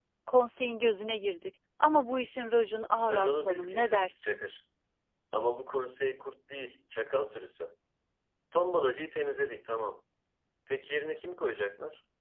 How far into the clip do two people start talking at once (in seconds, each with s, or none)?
3.1 s